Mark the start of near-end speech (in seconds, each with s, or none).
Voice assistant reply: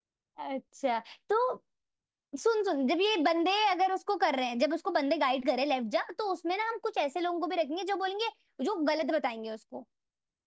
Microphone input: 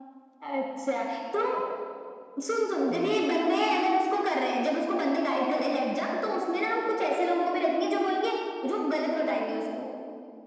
2.9 s